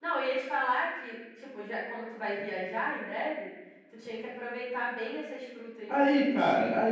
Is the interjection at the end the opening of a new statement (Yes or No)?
Yes